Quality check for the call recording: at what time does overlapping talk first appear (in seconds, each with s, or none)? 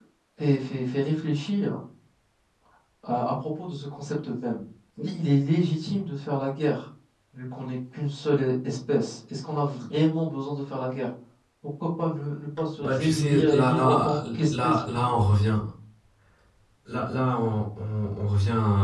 12.8 s